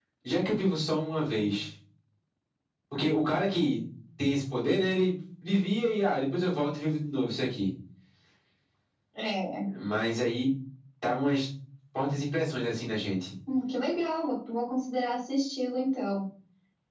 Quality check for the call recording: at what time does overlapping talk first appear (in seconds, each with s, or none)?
none